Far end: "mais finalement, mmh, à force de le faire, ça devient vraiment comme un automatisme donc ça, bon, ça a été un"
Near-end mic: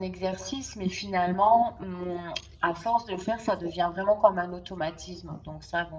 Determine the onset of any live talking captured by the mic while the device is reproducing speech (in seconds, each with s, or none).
none